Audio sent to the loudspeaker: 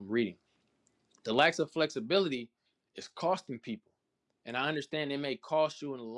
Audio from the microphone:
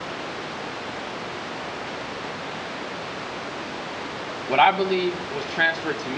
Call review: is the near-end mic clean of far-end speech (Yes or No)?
Yes